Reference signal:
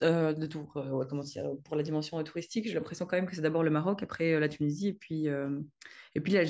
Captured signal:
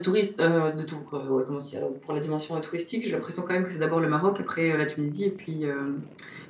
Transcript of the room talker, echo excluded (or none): none